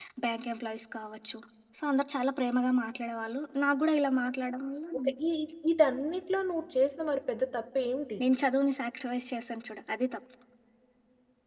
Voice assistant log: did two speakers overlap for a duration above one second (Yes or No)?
No